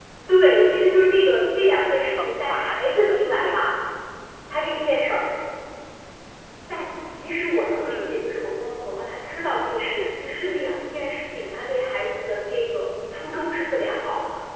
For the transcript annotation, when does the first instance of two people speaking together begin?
2 s

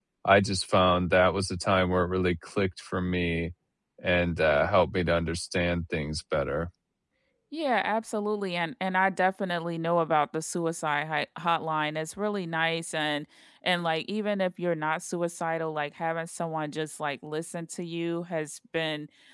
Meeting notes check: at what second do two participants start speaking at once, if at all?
none

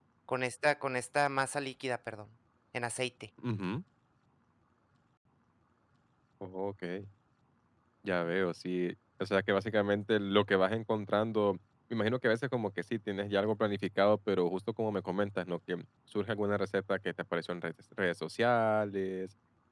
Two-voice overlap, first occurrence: none

